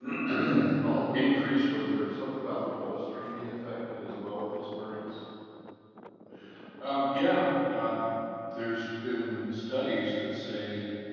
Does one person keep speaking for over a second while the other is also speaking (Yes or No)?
No